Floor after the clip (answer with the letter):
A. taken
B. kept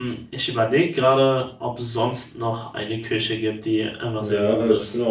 A